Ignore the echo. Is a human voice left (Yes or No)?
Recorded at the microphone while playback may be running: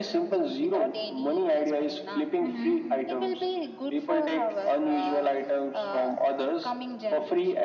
Yes